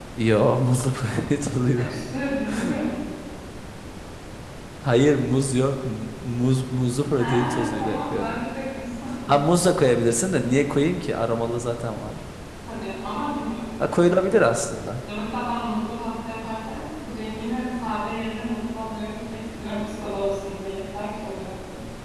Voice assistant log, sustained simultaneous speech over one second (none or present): present